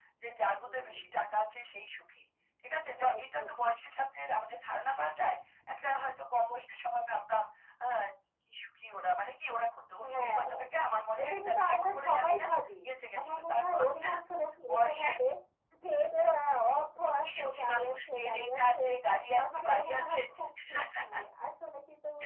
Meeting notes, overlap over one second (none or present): present